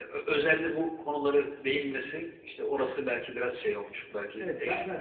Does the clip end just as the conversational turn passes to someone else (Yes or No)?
Yes